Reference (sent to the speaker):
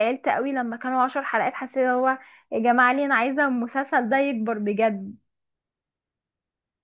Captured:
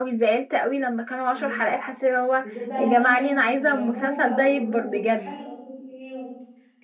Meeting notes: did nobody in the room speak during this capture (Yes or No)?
No